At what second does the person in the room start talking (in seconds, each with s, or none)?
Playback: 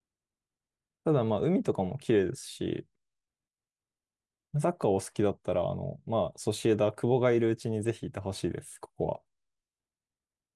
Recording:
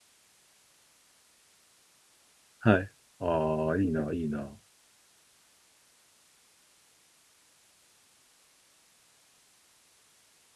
2.6 s